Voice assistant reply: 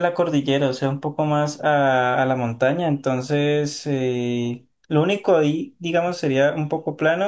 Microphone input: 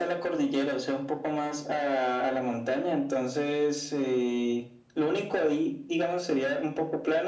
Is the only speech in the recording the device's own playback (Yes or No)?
Yes